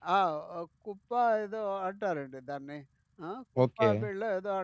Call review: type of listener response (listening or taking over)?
listening